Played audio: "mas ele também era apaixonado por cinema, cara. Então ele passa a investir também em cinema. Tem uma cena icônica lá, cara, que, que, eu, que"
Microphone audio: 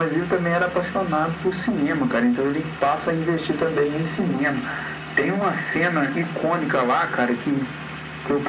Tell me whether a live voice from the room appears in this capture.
No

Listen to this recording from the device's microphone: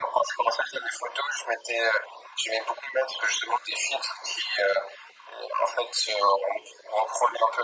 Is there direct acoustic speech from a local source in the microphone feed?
No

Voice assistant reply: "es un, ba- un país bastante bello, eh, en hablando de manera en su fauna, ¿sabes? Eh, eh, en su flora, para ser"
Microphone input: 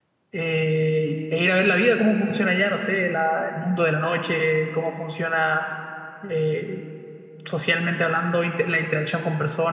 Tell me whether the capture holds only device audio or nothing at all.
No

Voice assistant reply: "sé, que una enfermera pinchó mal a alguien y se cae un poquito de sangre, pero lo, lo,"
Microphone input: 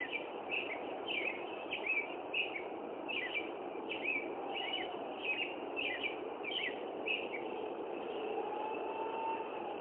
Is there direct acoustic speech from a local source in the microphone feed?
No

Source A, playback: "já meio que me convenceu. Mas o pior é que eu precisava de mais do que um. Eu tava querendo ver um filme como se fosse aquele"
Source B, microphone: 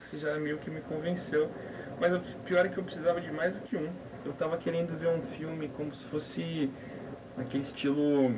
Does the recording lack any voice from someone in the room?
Yes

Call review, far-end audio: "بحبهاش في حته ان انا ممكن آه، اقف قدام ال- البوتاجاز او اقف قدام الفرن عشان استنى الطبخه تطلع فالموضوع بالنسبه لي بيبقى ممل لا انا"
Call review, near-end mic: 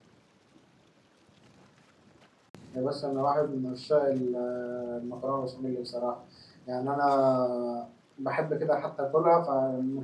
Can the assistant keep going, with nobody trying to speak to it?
No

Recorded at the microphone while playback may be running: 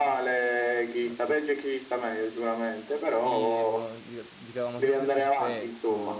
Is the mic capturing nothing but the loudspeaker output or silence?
No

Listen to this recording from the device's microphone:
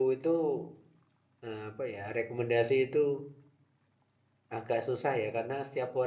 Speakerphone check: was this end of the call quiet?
No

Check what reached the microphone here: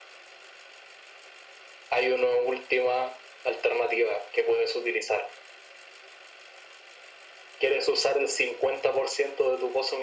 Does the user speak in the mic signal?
No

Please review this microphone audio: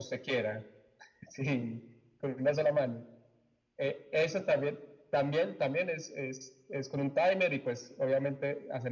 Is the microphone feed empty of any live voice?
Yes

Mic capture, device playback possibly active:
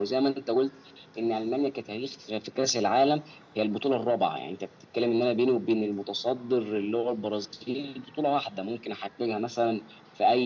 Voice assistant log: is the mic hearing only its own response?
Yes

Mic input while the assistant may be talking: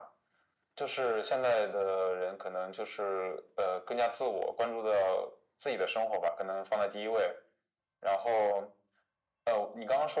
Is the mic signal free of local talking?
Yes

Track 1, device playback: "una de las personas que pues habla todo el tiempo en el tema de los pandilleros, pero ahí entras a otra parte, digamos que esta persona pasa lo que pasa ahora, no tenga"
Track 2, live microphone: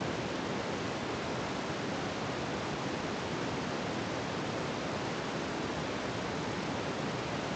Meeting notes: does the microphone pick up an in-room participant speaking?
No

